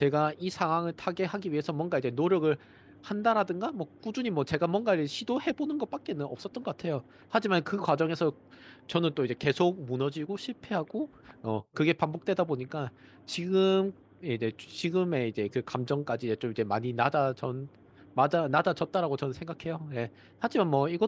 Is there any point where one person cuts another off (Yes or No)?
No